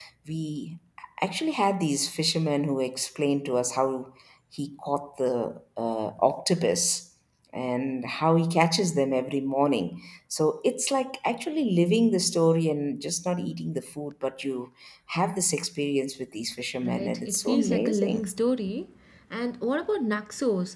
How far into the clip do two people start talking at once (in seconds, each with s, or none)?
16.8 s